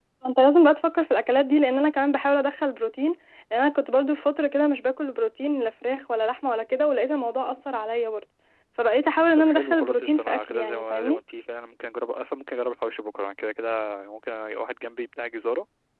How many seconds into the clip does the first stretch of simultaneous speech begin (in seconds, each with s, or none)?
9.4 s